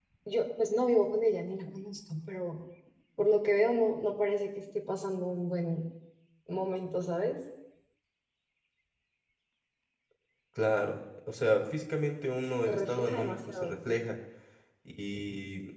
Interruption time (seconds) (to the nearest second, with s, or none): 13 s